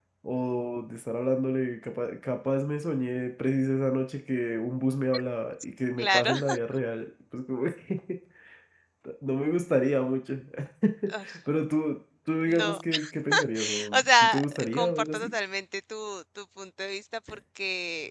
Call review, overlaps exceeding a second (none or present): present